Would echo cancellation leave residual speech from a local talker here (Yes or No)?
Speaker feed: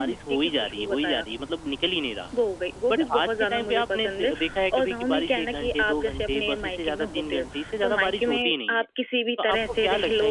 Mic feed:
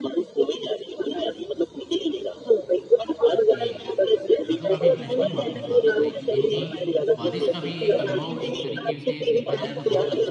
Yes